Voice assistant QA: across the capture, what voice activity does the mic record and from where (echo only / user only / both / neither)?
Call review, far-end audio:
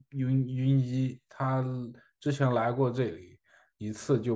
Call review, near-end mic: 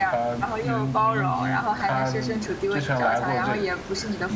both